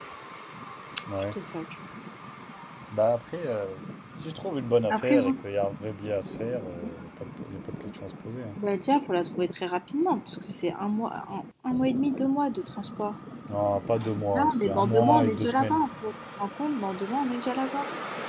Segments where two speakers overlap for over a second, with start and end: 14.3-15.8

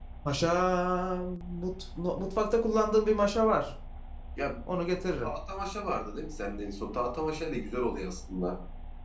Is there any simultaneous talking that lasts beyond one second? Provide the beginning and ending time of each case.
none

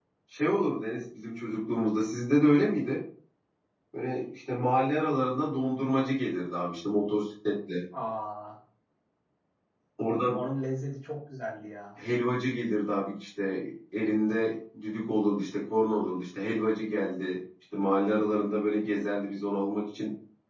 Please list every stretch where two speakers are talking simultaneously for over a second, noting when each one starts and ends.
none

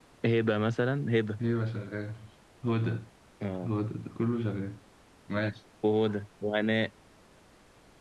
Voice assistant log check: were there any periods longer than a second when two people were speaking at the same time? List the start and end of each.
none

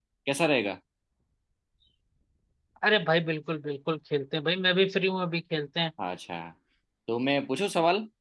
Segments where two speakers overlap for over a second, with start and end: none

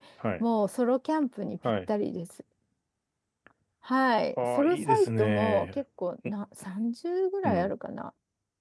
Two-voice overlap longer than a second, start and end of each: 4.4-5.8

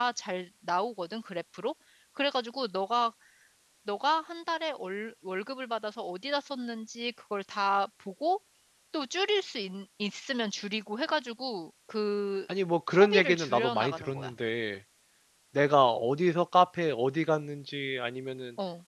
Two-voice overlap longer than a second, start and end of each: 12.9-14.3

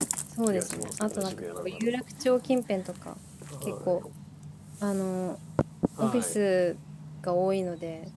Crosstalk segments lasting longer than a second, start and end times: 0.5-1.9

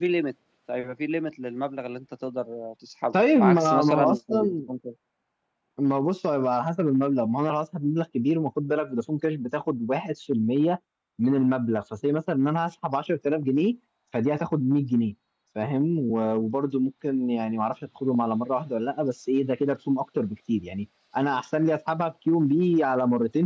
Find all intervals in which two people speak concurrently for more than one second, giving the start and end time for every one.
3.1-4.6

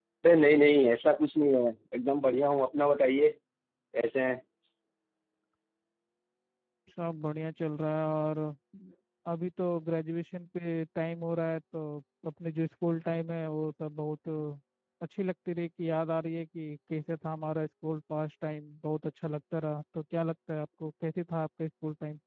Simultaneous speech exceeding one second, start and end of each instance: none

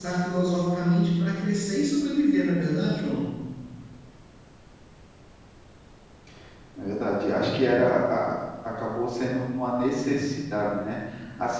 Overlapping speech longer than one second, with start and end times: none

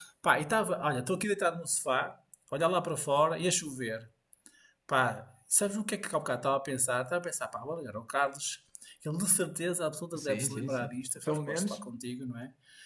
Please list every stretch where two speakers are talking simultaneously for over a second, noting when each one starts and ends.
10.2-11.8

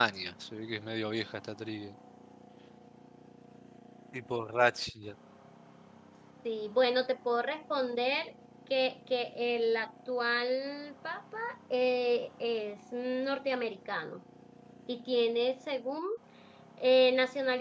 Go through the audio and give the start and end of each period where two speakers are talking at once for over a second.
none

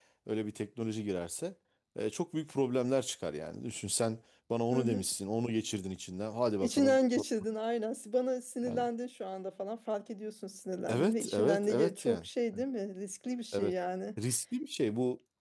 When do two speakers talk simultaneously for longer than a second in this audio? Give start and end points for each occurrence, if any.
10.9-12.3

